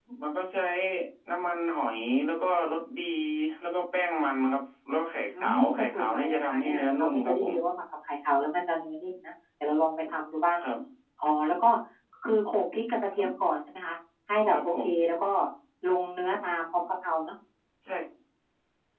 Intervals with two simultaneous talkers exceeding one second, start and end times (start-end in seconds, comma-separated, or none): 5.4-7.5